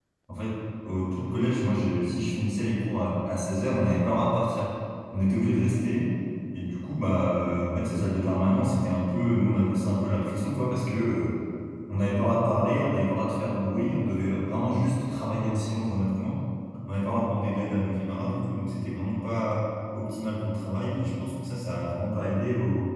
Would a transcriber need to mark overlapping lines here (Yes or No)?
No